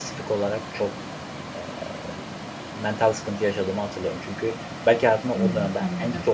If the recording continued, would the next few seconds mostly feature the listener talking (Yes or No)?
No